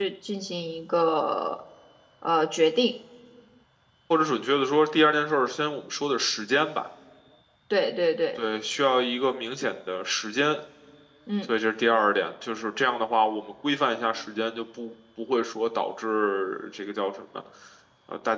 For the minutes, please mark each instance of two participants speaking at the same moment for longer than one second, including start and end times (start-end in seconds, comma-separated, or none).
none